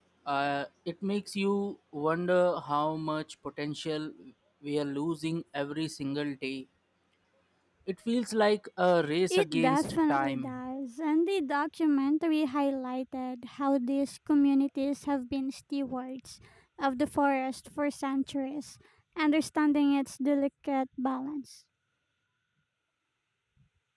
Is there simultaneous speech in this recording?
Yes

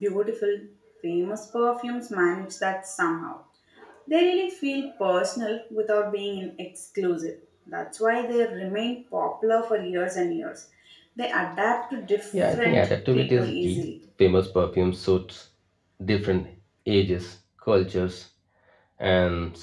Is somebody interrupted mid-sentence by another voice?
Yes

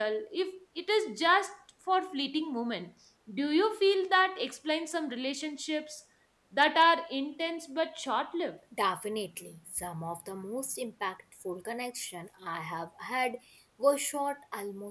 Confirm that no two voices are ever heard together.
Yes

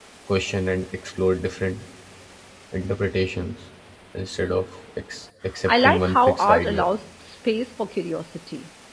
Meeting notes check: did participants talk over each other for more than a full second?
Yes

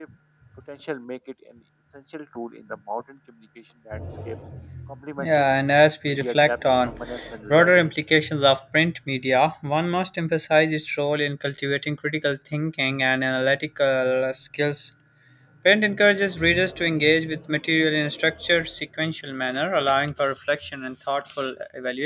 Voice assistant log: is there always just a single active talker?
No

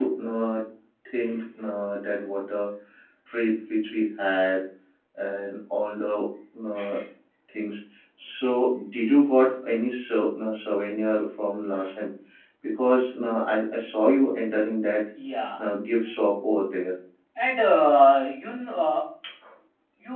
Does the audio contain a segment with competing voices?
No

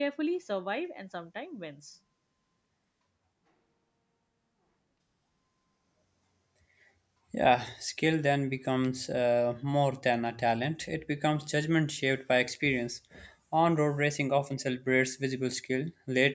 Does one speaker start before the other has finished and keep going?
No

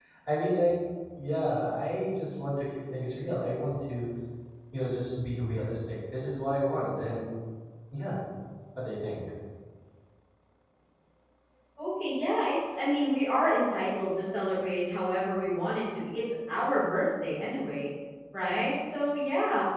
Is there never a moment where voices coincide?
Yes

